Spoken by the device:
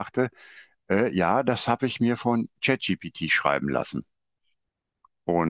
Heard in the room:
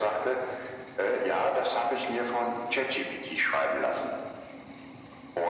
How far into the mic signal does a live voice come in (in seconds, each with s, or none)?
none